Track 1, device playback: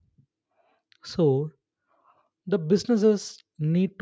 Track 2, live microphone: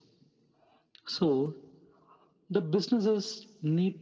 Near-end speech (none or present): none